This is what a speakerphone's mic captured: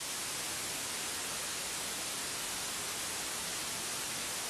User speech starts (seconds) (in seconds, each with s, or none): none